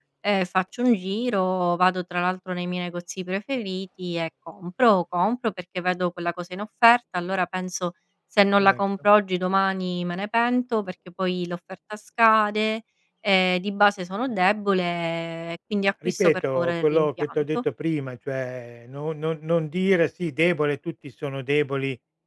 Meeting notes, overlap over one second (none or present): present